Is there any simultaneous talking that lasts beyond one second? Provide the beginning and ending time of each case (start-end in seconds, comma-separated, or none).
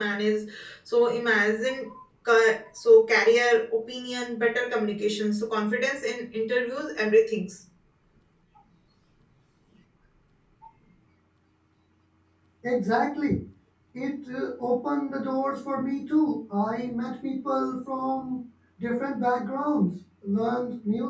none